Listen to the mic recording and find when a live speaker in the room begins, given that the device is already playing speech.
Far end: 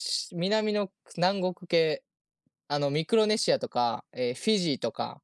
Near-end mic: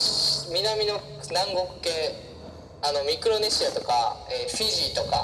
none

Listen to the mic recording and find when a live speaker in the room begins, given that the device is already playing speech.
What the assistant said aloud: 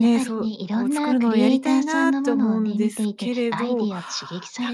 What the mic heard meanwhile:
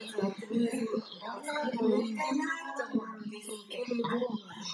1.6 s

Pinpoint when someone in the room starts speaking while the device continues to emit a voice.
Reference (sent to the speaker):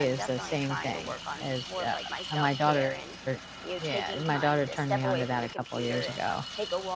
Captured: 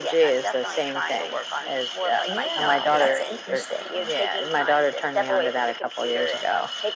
2.2 s

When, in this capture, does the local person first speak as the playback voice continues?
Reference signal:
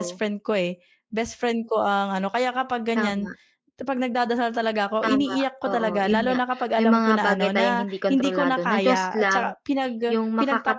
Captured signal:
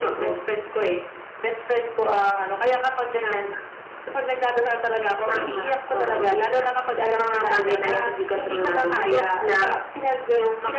none

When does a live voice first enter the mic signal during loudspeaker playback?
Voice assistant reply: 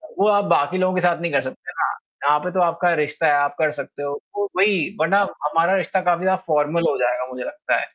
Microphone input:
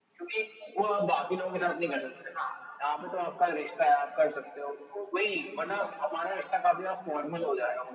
none

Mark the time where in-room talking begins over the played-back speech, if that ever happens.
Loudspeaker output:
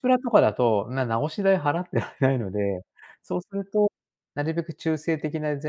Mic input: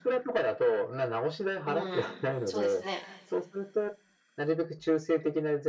1.6 s

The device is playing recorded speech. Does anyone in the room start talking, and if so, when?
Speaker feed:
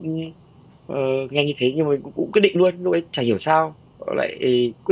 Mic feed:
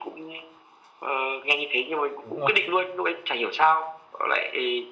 2.2 s

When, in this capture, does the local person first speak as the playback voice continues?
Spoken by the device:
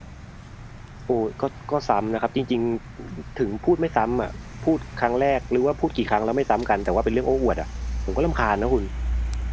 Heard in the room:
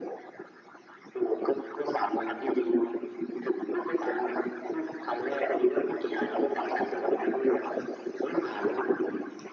none

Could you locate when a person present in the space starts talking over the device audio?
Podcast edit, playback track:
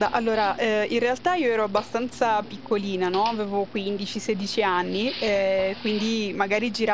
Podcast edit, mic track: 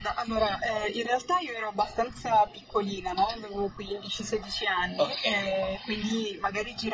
5.0 s

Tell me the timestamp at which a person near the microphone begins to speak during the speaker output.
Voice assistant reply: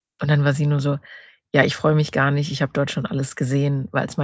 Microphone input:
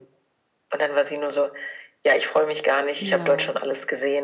3.0 s

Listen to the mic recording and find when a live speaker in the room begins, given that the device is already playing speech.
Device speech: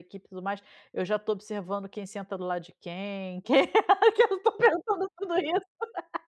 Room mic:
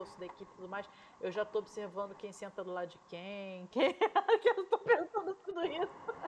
none

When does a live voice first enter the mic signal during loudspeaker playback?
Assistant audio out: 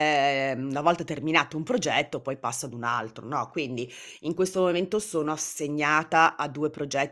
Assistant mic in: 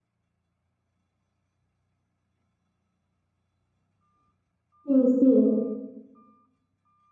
4.8 s

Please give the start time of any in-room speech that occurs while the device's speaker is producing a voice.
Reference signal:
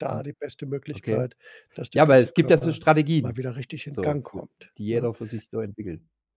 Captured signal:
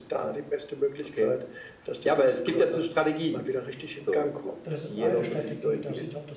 4.6 s

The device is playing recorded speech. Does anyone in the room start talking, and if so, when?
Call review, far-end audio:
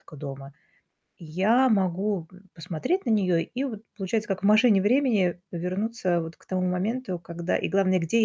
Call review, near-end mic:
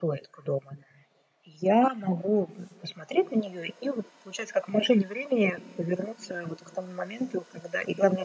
none

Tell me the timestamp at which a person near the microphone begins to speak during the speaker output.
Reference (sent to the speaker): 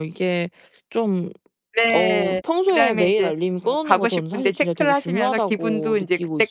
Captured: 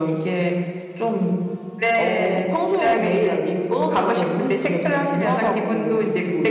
none

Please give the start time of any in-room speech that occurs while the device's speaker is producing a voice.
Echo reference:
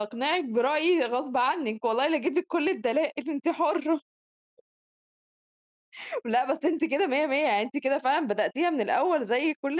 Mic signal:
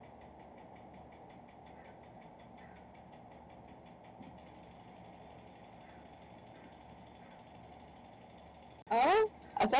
8.9 s

